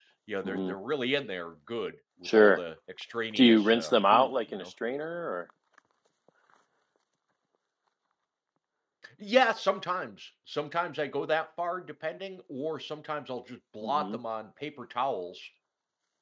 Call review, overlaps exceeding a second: present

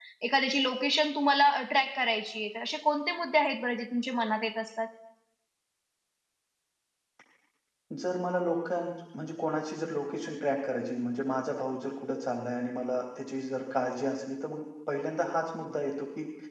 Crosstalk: none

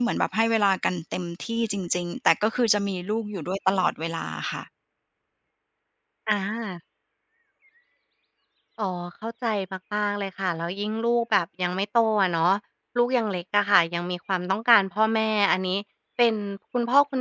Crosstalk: none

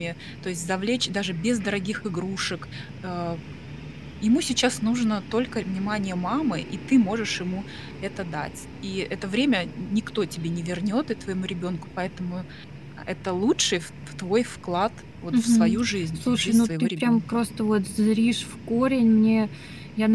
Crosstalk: present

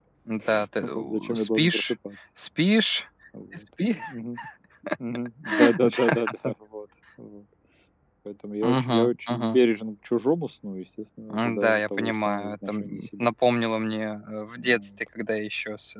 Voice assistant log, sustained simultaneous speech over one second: present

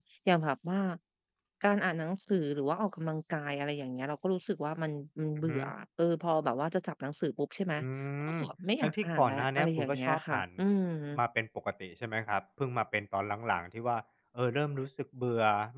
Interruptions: present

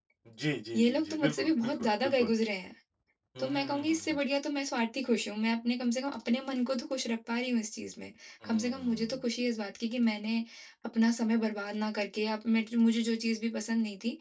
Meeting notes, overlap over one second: present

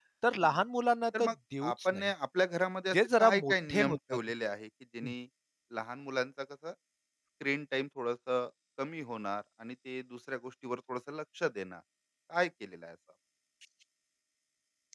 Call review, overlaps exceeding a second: present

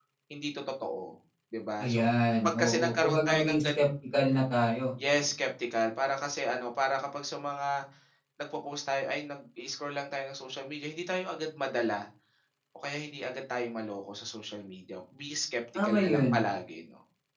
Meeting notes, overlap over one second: present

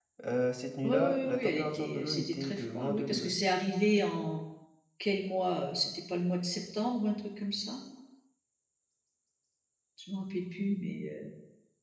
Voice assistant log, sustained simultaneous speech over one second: present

